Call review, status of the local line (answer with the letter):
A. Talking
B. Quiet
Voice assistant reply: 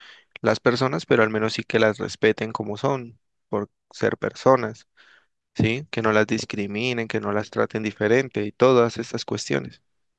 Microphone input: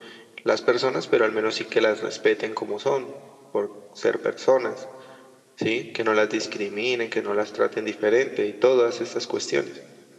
B